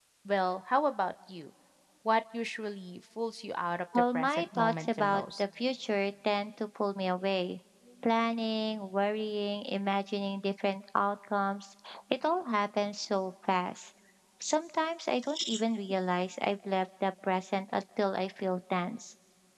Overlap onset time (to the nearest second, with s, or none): 4 s